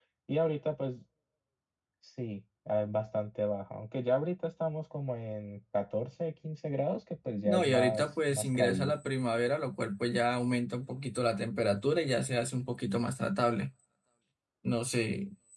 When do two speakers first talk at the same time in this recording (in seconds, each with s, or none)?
7.4 s